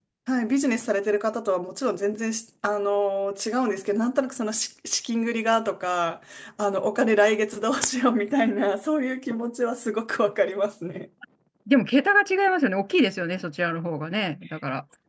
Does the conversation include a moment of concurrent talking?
No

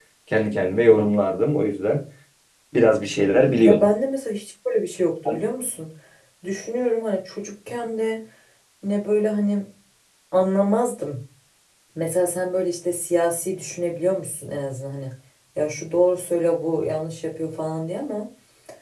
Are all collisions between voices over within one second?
Yes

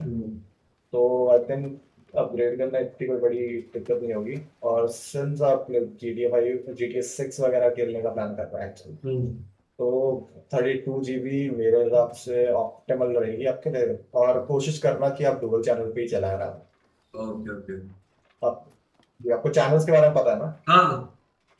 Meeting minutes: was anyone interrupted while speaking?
No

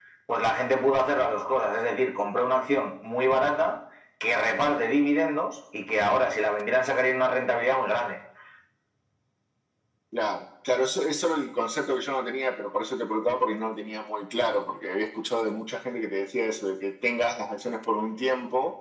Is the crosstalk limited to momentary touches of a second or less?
Yes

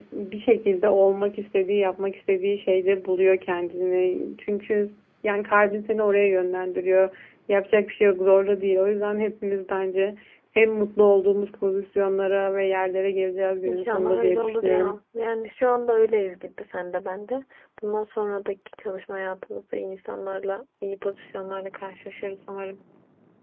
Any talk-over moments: Yes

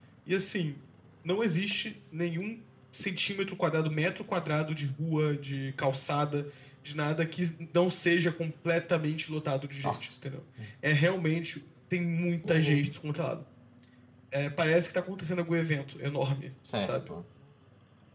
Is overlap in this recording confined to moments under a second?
Yes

